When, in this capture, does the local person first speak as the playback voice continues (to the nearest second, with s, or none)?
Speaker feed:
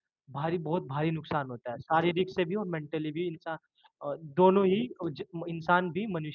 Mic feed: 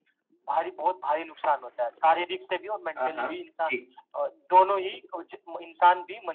3 s